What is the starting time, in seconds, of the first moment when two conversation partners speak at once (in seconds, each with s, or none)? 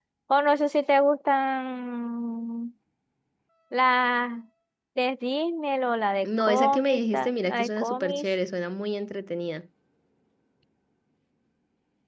6.2 s